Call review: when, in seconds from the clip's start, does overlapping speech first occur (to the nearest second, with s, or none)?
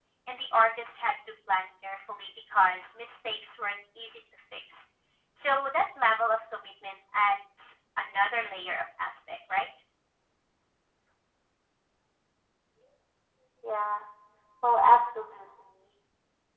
none